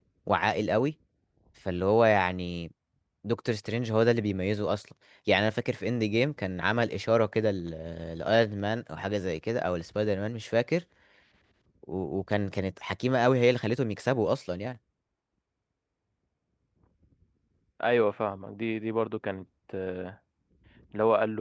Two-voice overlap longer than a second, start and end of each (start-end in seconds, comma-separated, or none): none